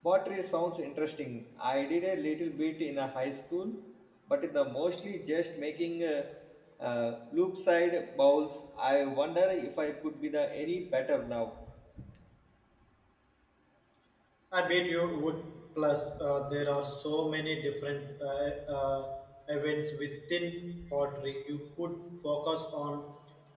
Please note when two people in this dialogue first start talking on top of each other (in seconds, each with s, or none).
none